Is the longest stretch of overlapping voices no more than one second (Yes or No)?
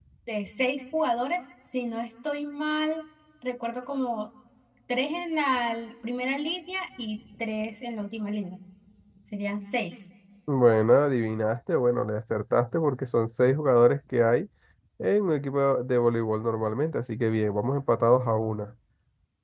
Yes